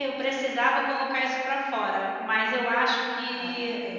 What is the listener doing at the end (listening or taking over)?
listening